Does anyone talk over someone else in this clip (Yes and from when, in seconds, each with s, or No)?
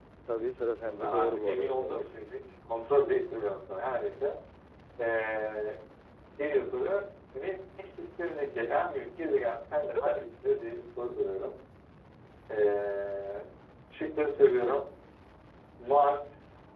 Yes, from 0.6 s